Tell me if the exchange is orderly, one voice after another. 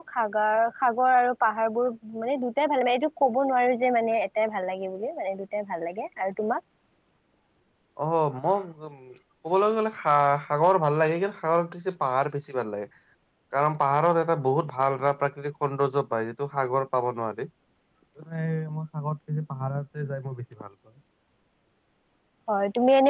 Yes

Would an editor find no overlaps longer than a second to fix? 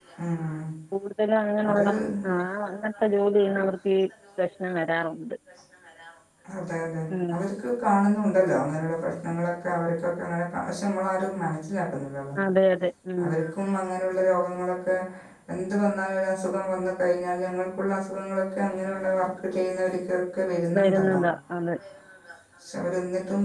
Yes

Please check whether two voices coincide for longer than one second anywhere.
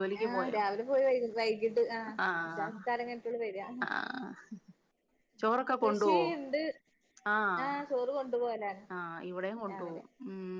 No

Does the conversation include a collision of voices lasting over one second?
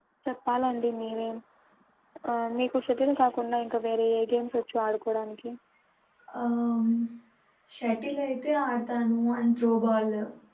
No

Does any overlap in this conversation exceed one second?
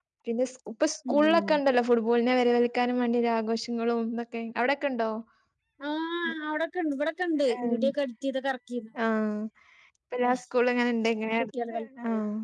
No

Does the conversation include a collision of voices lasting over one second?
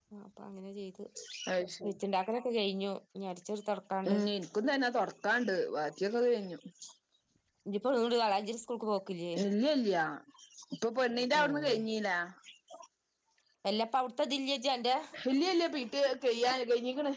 No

